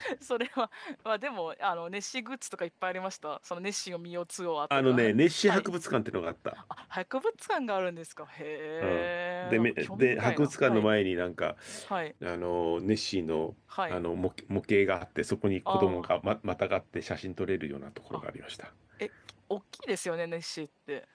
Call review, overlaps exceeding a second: present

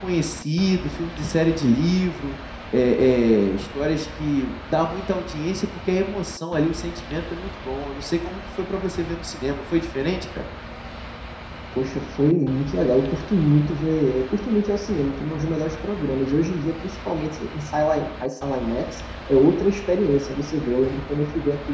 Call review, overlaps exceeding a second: none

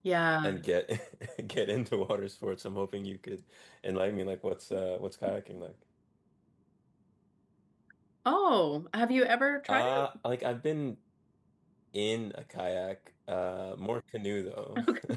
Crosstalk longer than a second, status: none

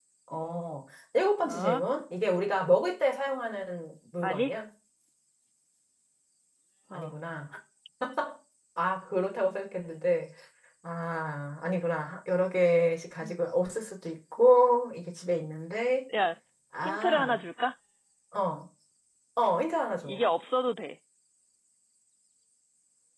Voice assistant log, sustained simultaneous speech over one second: none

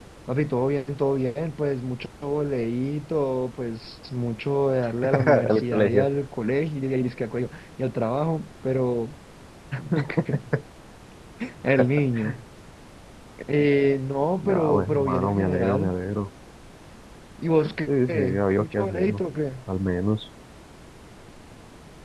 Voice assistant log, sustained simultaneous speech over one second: present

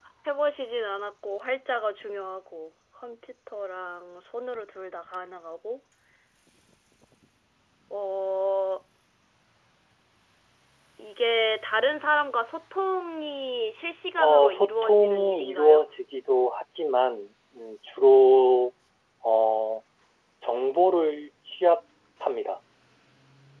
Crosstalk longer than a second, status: present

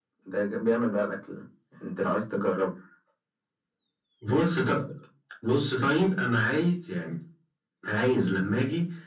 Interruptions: none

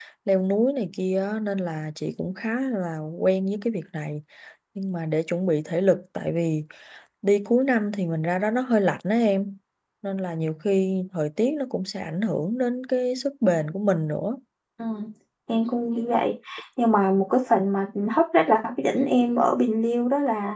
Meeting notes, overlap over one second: none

